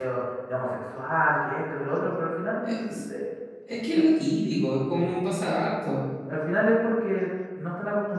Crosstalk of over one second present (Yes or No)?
No